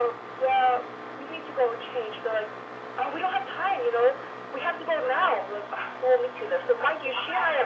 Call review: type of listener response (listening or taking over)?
listening